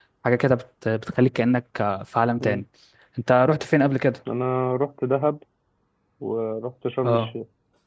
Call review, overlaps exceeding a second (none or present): none